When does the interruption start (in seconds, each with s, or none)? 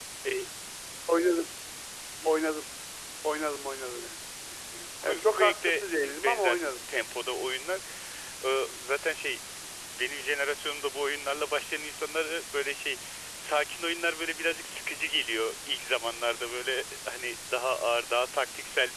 5.0 s